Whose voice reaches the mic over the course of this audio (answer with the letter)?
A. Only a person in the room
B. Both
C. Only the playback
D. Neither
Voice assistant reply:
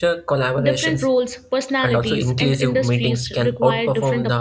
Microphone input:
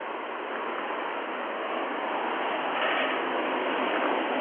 D